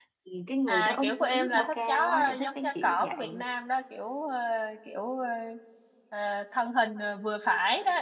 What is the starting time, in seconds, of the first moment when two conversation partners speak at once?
0.7 s

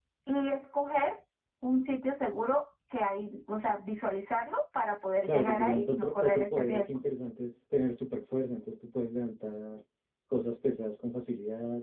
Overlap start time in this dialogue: 5.2 s

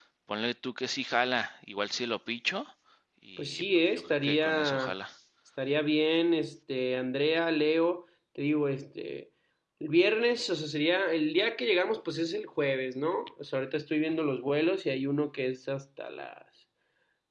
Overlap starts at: 3.4 s

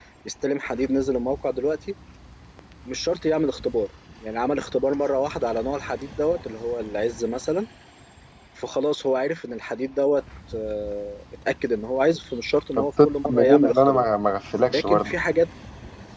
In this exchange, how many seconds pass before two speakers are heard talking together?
12.8 s

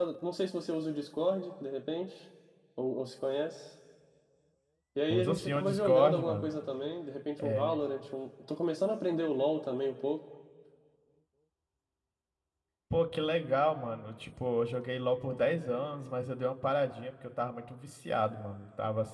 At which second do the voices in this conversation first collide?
5.1 s

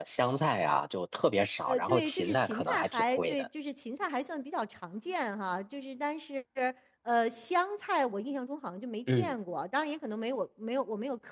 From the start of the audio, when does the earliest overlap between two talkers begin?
1.7 s

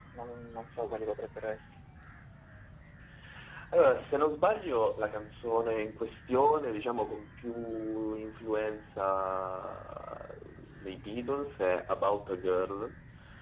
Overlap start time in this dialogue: none

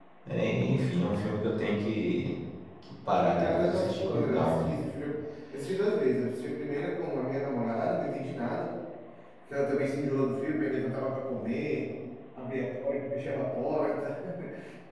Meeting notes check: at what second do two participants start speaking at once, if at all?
3.4 s

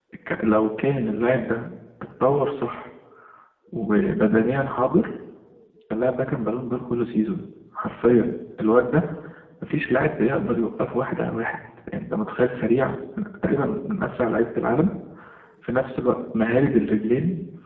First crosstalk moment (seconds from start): none

